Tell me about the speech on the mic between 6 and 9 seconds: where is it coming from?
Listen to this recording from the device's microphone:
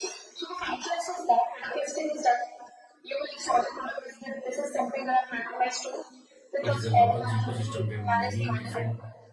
both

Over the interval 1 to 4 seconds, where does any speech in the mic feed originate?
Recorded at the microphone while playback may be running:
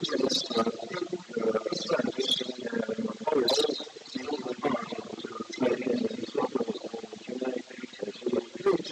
echo only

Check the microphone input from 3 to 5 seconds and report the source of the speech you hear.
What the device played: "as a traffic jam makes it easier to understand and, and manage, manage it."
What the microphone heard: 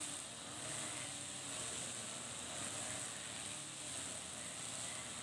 neither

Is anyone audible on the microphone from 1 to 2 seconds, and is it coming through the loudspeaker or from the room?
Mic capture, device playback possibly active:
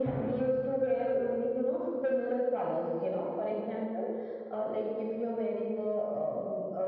echo only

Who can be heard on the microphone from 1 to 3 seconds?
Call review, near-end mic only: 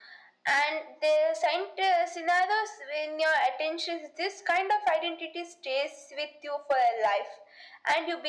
echo only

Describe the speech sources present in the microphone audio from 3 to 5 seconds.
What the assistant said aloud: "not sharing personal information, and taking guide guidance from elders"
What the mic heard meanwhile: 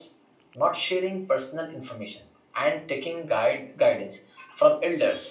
echo only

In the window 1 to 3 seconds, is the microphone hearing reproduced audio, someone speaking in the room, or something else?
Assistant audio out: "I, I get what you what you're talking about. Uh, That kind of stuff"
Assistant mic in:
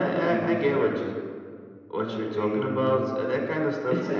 both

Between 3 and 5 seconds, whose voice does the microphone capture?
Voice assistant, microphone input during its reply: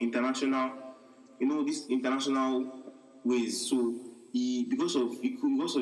echo only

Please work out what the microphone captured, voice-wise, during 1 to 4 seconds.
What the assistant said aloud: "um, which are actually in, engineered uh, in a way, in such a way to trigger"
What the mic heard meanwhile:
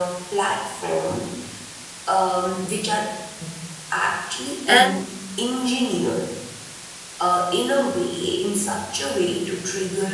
echo only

